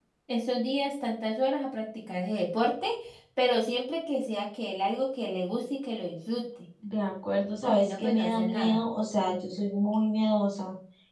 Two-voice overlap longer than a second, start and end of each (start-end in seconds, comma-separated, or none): 7.6-8.8